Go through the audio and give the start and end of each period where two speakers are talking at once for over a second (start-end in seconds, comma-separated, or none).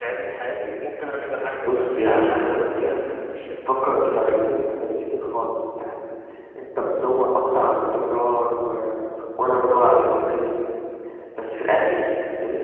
1.7-3.0